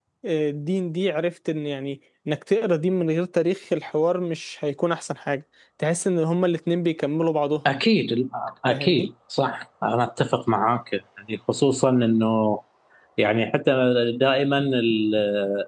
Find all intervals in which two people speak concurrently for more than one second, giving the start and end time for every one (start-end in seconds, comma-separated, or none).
none